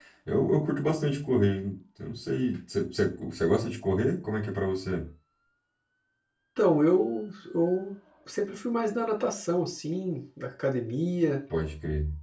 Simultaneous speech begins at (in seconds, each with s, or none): none